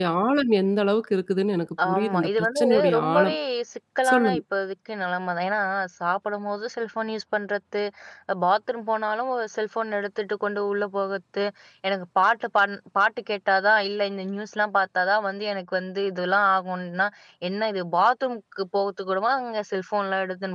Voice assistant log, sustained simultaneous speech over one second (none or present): present